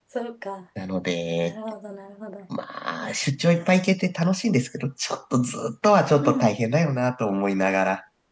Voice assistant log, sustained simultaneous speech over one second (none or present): none